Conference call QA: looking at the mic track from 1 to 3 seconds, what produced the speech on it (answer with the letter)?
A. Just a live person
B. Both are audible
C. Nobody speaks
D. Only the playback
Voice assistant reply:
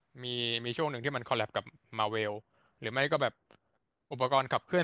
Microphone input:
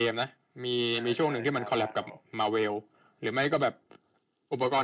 B